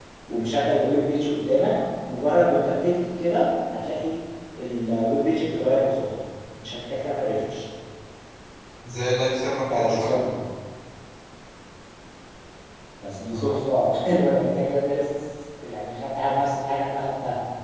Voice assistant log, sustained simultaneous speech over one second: none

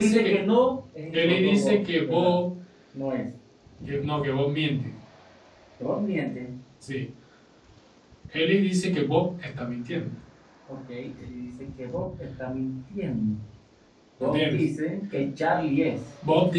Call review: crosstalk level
present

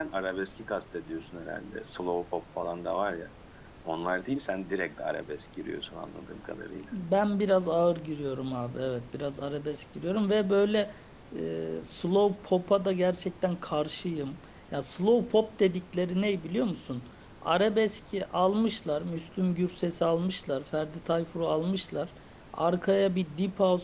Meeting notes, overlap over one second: none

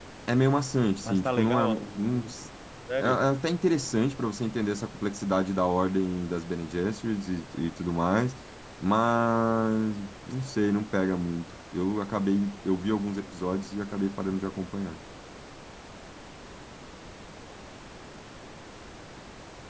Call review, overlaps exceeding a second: present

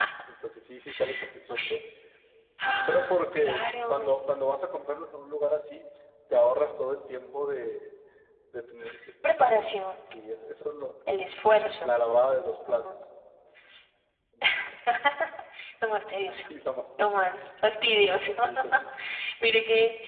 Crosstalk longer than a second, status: present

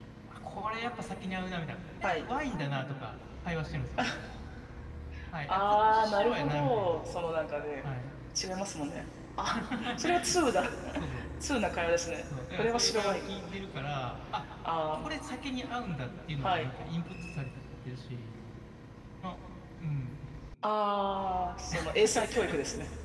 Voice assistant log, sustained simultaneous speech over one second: present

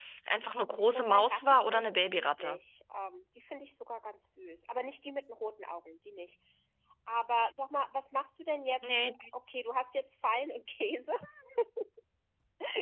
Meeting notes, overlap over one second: present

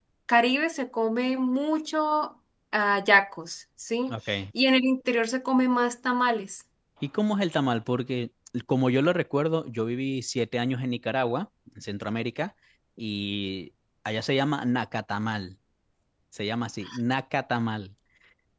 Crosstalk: none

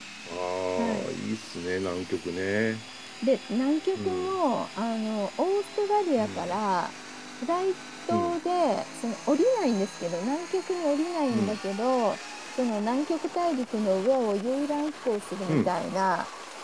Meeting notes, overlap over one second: none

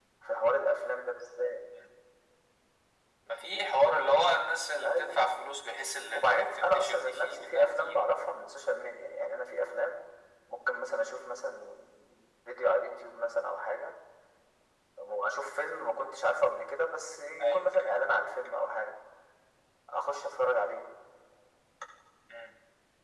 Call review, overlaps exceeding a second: present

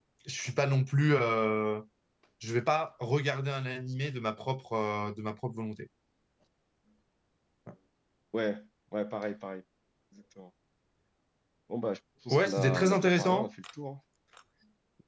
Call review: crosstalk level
present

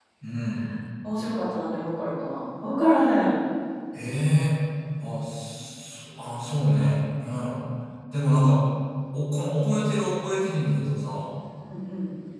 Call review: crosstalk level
none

